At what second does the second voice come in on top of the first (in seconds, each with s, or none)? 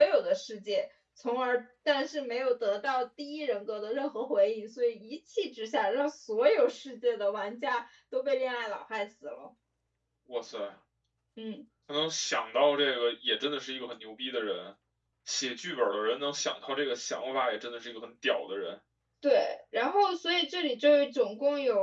none